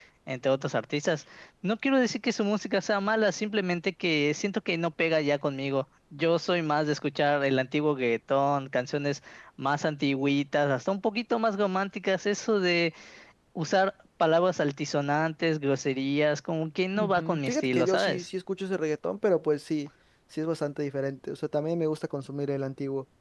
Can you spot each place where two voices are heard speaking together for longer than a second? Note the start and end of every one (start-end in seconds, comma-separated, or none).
17.0-18.3